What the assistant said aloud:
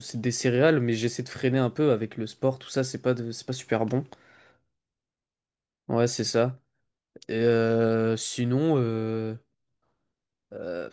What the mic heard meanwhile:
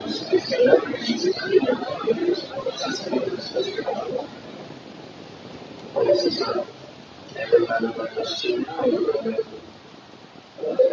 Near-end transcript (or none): none